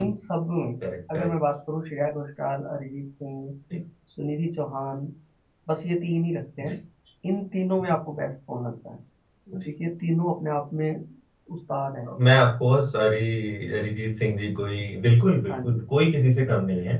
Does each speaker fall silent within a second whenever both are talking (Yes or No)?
Yes